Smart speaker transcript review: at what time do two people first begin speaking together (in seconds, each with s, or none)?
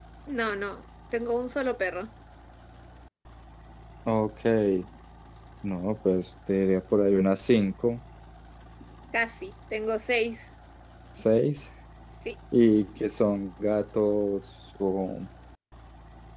none